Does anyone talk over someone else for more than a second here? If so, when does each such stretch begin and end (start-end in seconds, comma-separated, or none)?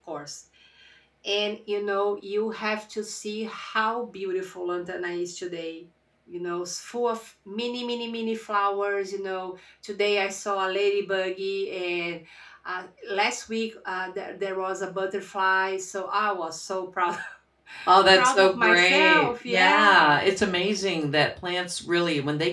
18.1-20.2